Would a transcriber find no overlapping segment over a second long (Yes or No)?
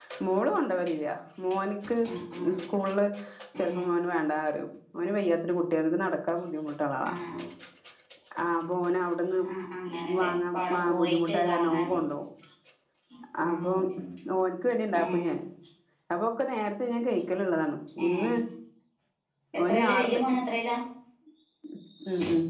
No